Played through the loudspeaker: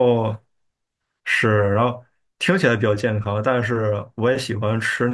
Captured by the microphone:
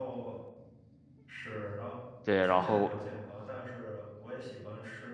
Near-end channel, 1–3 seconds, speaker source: both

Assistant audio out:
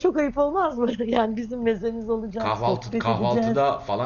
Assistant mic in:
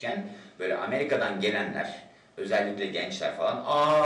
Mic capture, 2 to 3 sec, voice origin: user only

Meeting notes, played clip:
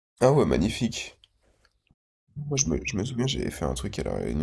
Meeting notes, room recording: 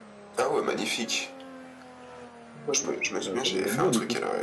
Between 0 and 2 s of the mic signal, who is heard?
echo only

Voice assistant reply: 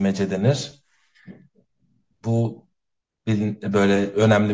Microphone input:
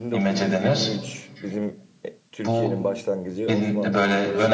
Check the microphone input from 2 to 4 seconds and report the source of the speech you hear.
both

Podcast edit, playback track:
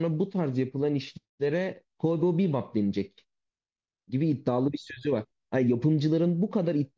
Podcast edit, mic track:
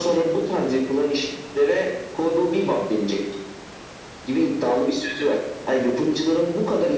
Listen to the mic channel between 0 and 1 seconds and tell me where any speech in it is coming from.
echo only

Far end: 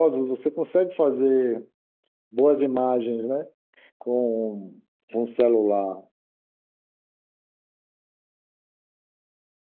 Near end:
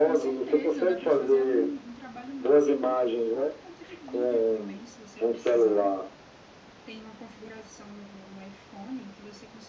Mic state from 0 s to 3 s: both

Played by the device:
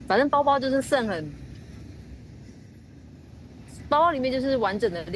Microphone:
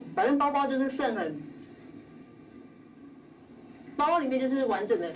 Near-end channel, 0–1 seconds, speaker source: echo only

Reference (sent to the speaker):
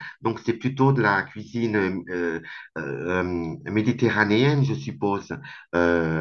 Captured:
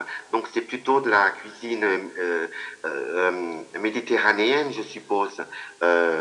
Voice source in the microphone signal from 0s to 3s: echo only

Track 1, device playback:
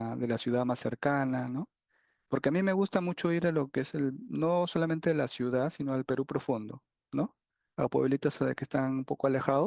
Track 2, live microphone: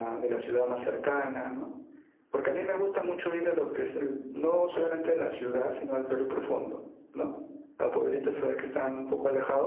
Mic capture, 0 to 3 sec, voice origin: echo only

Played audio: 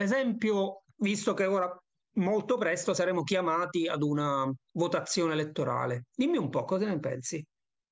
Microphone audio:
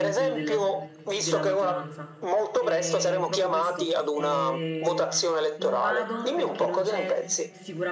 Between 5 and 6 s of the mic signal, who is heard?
both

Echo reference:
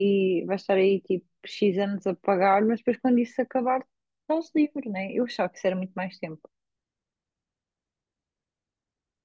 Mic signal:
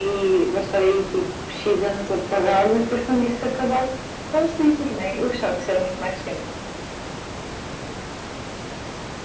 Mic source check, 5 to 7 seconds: echo only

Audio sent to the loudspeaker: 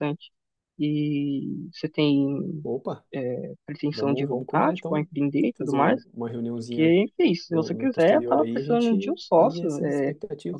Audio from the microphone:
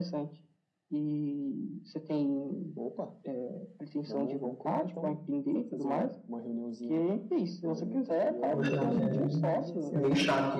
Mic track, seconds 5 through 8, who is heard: echo only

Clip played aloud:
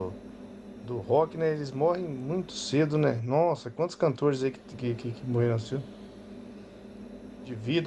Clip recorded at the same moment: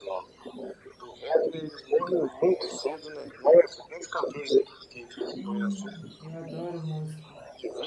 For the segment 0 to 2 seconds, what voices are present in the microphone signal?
echo only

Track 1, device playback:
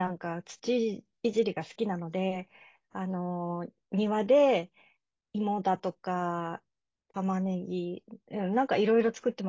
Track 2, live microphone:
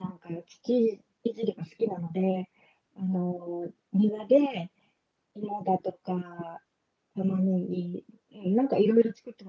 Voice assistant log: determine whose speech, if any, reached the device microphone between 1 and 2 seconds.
echo only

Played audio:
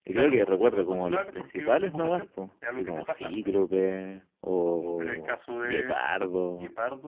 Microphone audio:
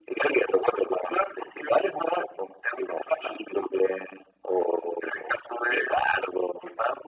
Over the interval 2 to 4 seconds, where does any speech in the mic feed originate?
echo only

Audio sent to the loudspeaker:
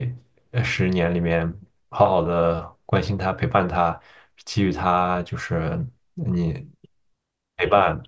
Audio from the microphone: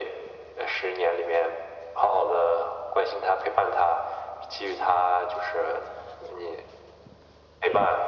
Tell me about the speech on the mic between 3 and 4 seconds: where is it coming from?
echo only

